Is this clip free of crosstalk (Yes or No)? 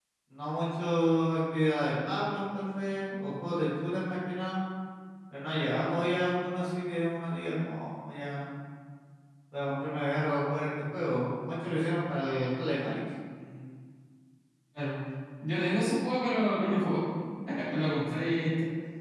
Yes